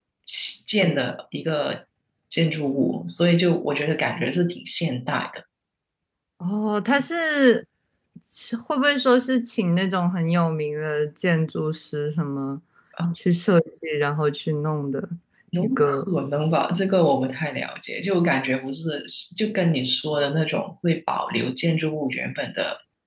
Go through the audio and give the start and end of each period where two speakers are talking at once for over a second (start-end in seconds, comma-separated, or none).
none